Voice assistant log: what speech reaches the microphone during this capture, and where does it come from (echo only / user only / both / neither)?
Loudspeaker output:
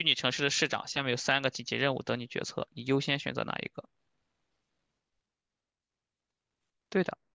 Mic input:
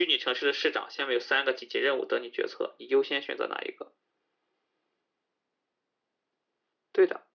echo only